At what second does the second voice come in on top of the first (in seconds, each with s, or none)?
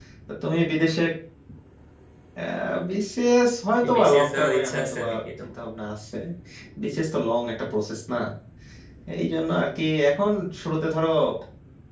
3.8 s